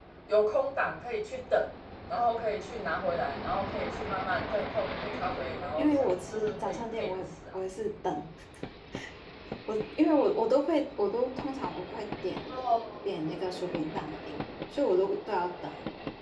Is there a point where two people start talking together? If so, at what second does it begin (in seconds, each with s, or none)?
5.8 s